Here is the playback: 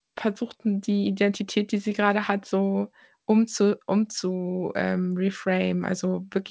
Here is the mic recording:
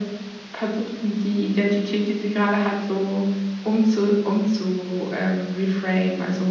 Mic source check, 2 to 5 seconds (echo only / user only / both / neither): echo only